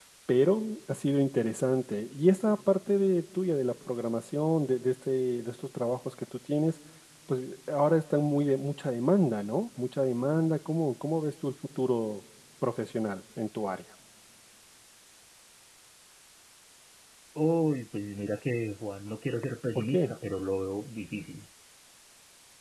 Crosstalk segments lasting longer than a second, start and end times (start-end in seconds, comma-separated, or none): none